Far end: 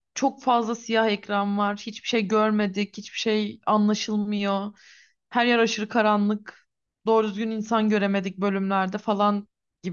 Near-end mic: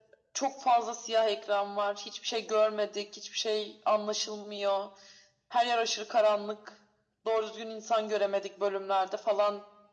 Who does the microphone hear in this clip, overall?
echo only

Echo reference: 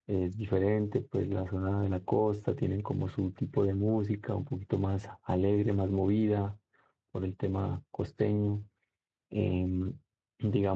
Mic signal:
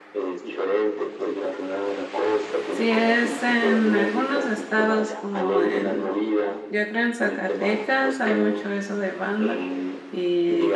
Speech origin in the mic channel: both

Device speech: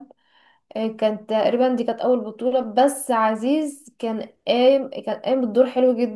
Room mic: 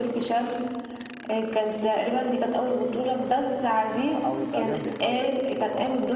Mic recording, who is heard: both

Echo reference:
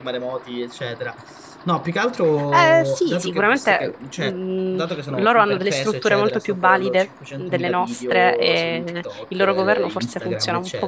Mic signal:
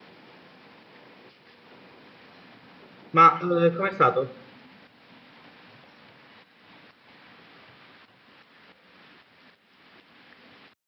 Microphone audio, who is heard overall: user only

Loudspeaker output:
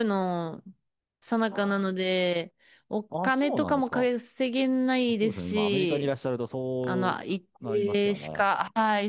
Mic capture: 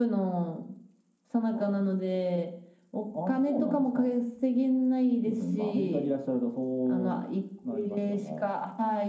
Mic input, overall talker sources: echo only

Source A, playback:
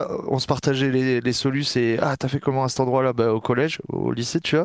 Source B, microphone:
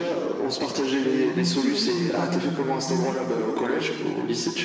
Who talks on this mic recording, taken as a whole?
both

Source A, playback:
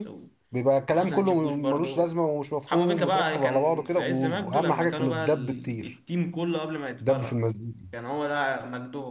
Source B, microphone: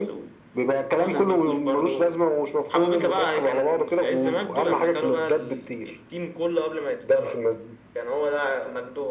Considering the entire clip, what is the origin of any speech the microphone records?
echo only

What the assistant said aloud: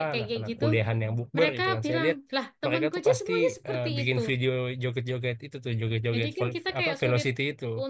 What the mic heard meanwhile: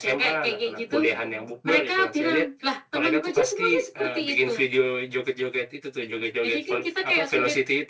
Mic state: echo only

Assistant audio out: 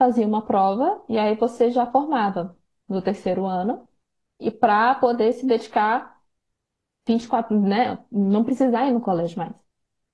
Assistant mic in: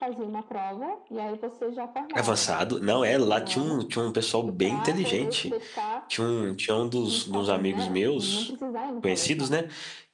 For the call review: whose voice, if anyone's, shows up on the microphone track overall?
both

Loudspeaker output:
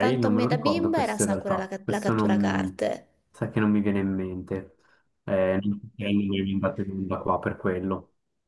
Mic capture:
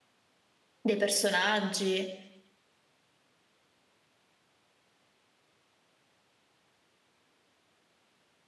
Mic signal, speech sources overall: user only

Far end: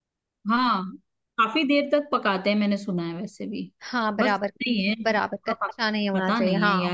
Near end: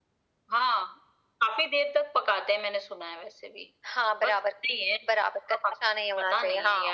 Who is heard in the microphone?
echo only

